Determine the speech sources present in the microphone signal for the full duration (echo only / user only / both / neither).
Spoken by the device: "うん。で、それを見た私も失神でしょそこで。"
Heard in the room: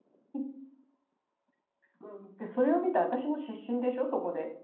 echo only